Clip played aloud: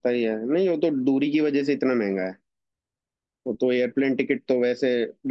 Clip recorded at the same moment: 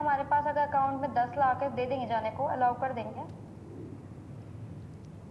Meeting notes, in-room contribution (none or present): present